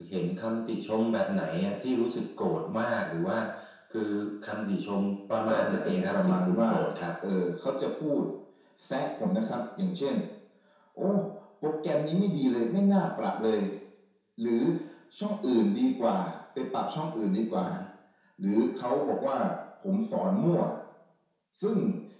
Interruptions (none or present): present